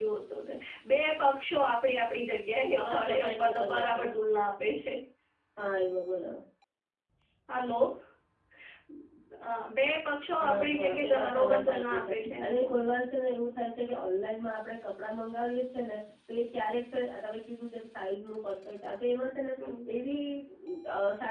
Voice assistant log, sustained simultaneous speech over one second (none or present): present